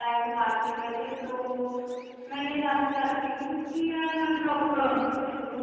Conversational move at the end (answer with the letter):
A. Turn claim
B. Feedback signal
B